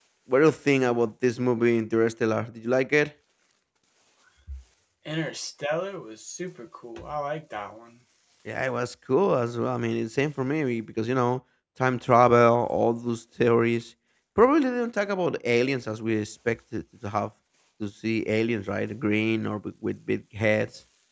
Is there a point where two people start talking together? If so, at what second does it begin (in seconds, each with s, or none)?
none